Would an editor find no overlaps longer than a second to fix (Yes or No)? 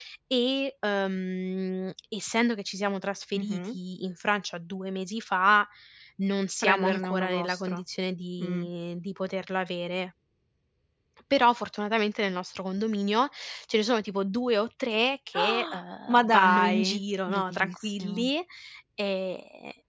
No